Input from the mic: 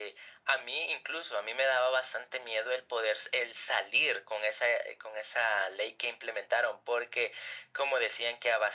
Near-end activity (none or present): none